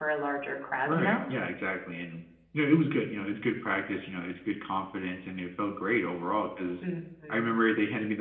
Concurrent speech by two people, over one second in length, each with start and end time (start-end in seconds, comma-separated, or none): none